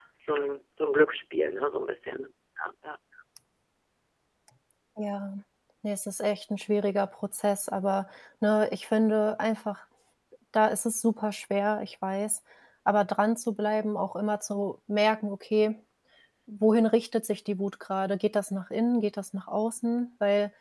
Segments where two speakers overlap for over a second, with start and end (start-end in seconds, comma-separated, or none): none